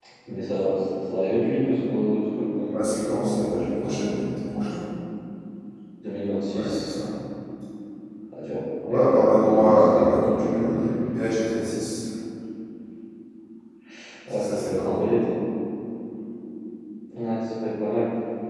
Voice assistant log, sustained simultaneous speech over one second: present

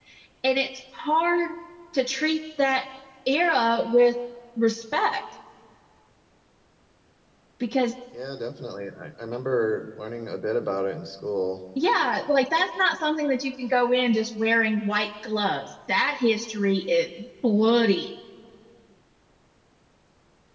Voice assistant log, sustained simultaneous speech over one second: none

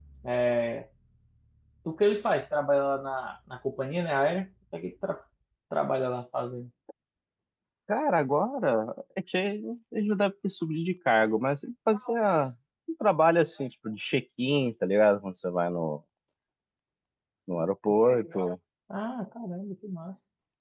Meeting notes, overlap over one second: none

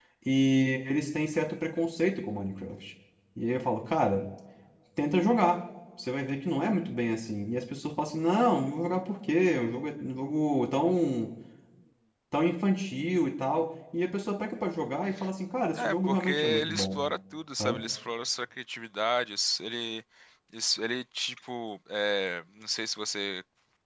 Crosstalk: present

